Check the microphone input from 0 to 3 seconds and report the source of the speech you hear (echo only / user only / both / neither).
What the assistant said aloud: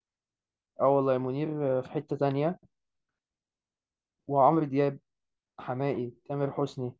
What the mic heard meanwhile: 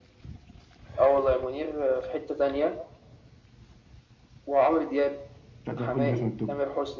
echo only